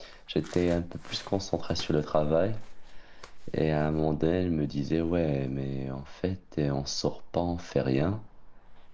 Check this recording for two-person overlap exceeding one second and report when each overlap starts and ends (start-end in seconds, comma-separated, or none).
none